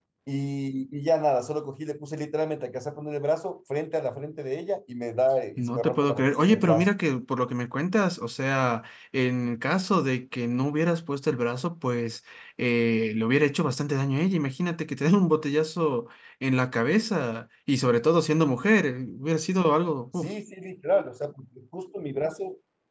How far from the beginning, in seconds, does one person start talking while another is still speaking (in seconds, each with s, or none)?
5.6 s